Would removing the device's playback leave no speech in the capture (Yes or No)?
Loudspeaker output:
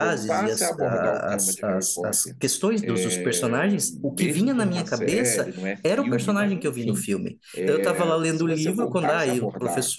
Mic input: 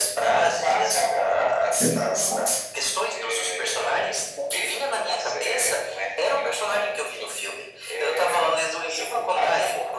No